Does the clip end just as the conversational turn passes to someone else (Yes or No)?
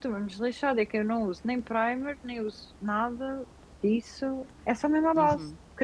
Yes